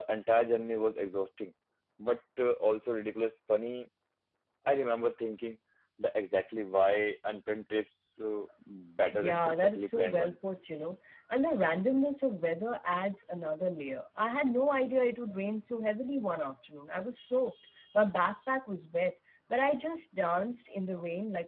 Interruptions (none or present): present